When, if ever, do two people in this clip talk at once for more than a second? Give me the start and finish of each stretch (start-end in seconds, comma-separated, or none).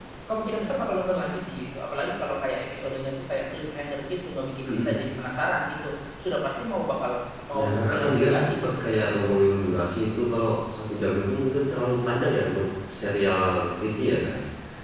7.5-9.3